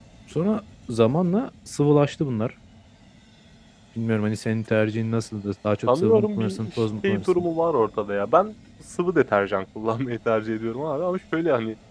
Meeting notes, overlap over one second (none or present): present